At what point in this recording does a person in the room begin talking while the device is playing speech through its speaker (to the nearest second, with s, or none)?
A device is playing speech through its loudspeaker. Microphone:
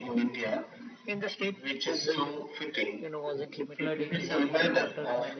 4 s